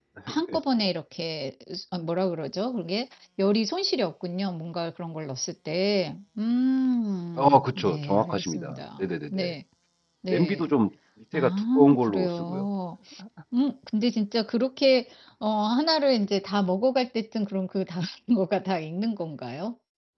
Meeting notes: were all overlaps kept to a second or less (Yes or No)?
No